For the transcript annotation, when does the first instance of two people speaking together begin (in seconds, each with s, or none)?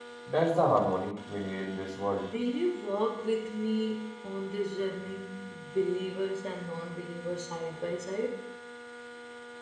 none